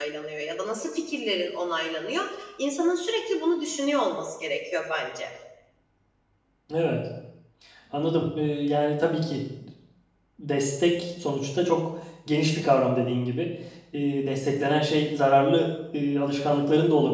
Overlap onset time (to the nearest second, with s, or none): none